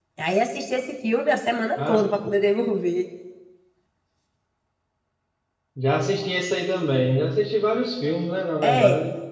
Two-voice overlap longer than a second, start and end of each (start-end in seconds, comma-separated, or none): none